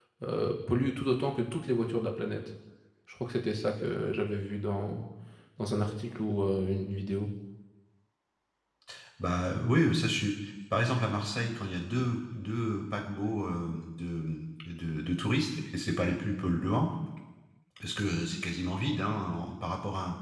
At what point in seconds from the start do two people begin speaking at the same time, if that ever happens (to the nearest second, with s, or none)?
none